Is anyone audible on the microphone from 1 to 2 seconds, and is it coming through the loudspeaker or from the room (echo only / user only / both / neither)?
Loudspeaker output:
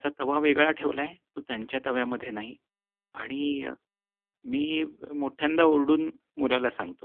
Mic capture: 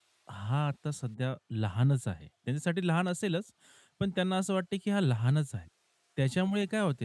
user only